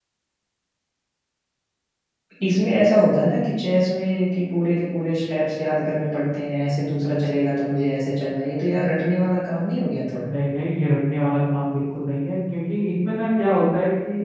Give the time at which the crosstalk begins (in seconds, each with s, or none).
none